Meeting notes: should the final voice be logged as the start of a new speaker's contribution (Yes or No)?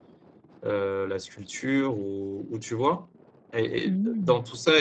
No